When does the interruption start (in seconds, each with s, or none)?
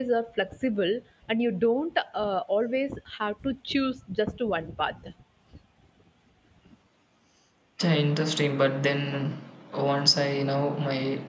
none